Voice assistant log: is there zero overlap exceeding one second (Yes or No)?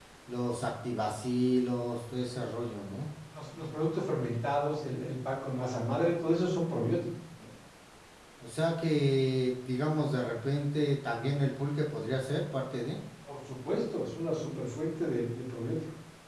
Yes